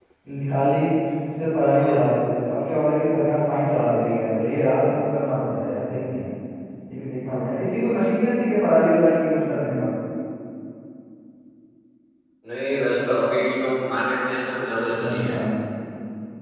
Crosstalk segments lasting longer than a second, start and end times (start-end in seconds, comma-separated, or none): none